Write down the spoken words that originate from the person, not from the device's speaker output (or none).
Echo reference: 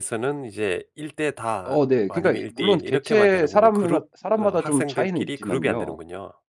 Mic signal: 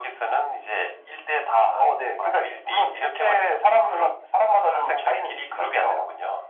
none